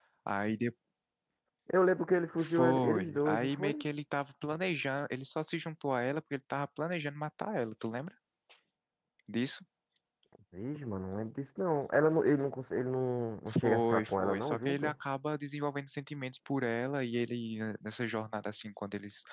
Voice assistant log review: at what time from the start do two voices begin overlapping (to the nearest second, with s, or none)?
2 s